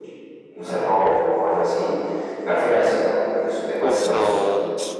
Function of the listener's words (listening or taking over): taking over